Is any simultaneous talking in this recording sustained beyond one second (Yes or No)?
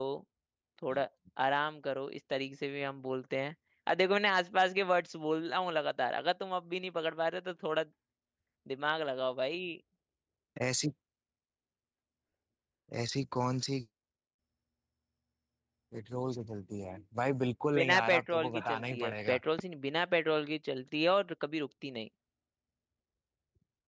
Yes